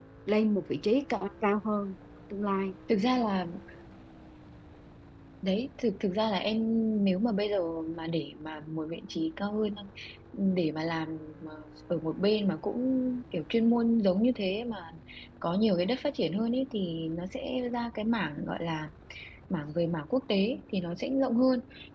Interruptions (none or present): none